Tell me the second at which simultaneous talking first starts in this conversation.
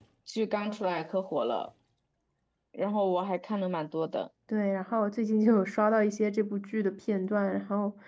none

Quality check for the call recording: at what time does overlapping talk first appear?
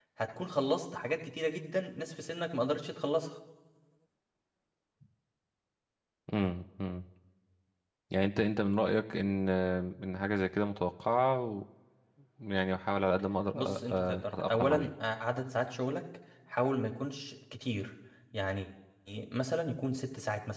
13.6 s

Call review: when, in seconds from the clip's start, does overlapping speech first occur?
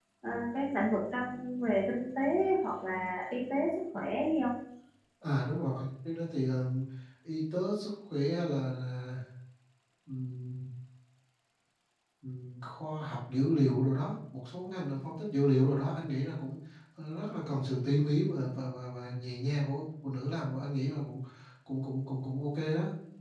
none

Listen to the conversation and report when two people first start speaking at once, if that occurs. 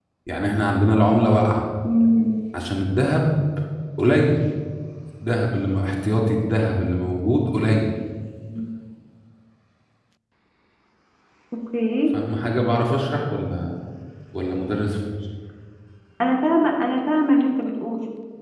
none

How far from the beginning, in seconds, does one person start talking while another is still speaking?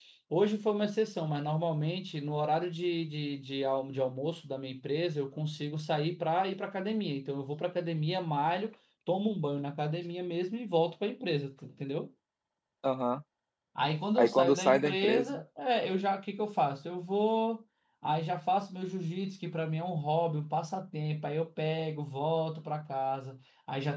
14.2 s

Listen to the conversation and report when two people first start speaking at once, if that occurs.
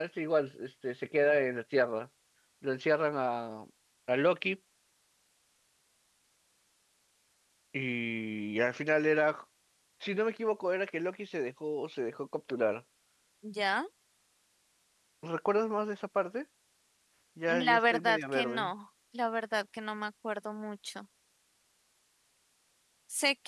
17.5 s

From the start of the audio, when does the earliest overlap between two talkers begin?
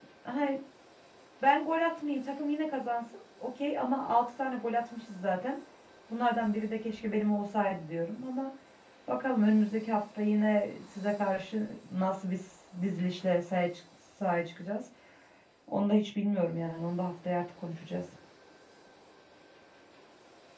none

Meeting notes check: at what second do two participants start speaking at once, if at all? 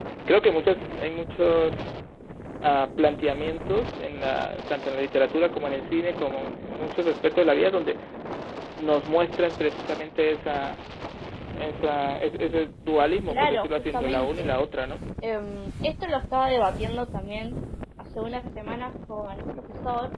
13.3 s

